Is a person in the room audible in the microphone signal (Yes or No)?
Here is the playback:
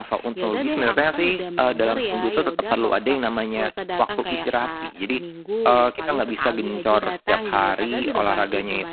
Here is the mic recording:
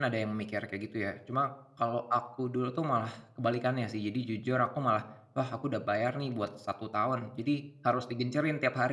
Yes